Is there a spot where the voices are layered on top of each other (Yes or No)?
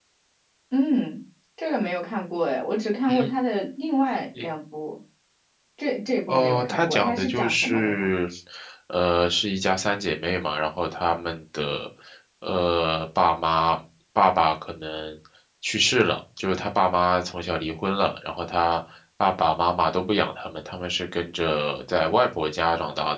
Yes